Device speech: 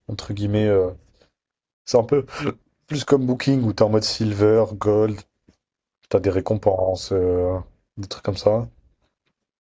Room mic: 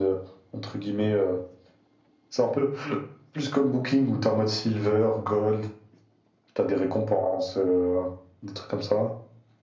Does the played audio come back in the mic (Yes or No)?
Yes